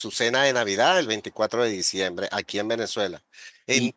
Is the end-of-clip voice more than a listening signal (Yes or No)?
Yes